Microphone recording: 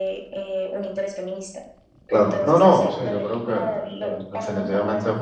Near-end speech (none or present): present